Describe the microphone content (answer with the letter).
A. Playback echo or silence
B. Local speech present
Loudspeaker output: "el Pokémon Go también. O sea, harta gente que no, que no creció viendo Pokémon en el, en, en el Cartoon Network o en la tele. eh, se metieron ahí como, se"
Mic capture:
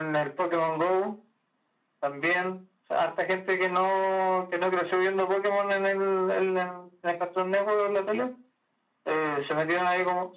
A